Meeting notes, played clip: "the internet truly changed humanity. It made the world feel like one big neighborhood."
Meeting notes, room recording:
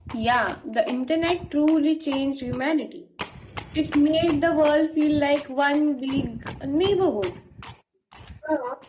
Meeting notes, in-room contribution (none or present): none